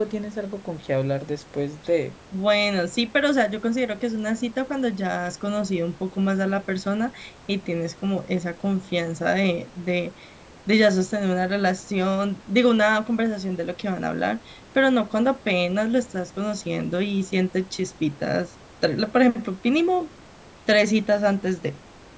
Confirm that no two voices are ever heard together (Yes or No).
Yes